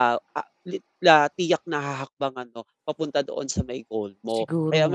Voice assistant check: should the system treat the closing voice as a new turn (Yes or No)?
No